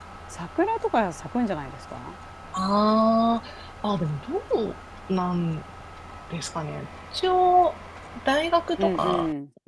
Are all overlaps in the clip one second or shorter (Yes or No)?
Yes